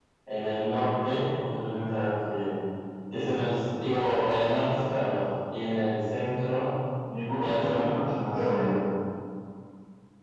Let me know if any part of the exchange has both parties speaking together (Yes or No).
Yes